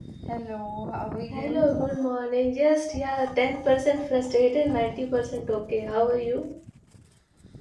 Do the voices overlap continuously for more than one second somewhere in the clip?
No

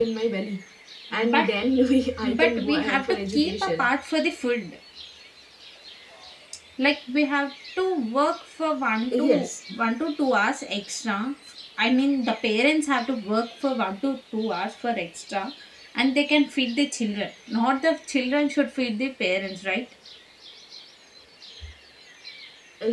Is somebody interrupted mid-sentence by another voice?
Yes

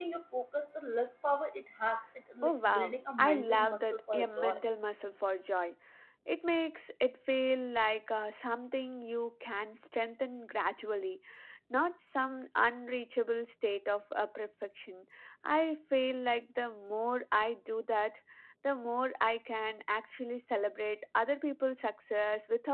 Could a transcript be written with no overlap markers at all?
No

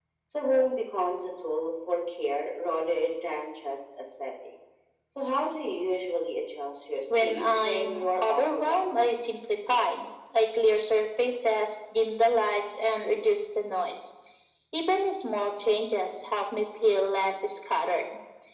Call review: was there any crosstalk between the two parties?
Yes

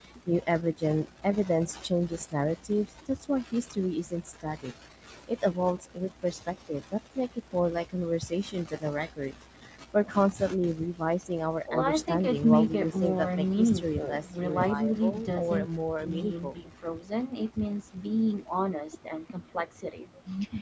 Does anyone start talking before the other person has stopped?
Yes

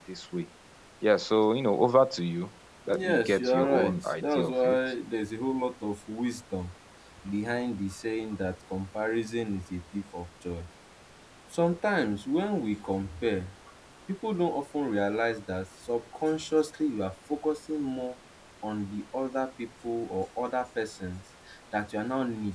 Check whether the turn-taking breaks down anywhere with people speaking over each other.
Yes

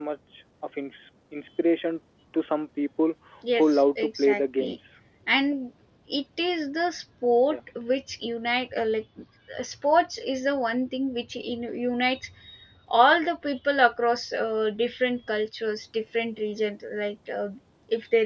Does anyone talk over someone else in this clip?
Yes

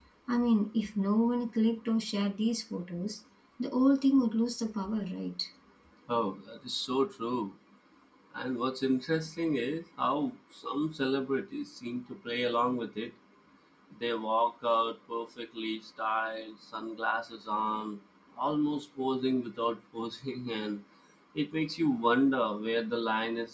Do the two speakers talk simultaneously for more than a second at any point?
No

